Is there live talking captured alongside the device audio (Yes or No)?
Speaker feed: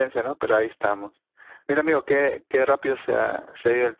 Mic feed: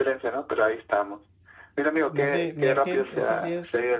Yes